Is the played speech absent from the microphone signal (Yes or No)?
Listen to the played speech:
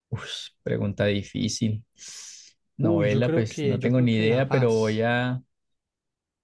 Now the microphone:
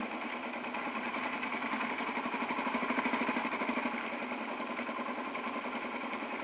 Yes